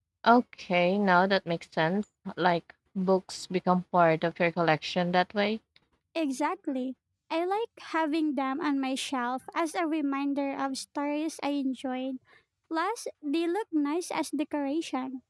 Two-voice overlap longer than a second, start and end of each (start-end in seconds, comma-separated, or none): none